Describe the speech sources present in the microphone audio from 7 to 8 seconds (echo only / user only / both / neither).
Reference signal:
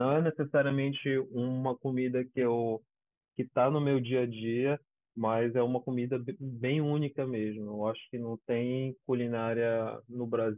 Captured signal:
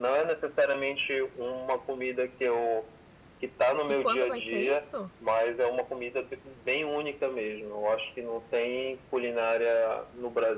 echo only